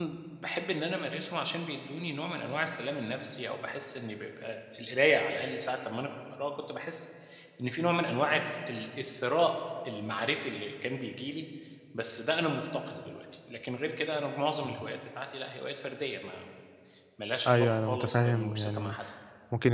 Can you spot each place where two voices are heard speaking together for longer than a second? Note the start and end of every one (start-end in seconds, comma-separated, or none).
17.5-19.0